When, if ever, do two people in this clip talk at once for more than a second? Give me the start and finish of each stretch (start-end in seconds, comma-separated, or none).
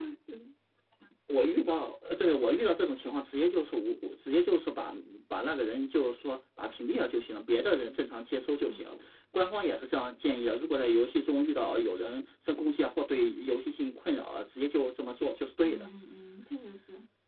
none